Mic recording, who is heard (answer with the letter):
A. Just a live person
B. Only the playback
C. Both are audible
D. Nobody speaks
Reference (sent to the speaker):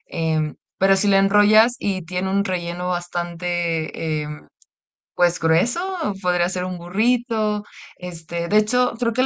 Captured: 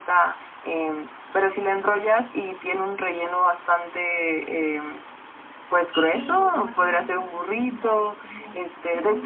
C